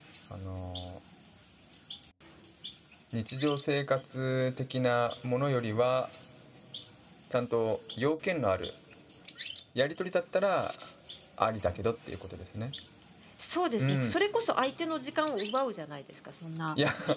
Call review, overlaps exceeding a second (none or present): none